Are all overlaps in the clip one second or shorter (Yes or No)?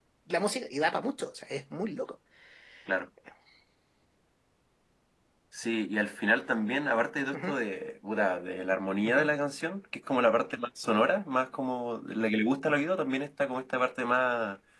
Yes